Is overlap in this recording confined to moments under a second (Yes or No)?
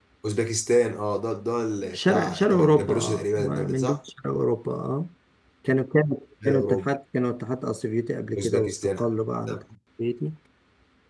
No